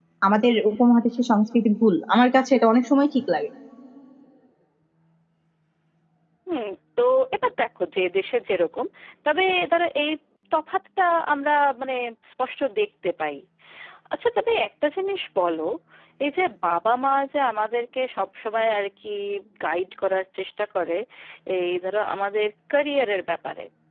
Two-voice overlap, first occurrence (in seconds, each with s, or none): none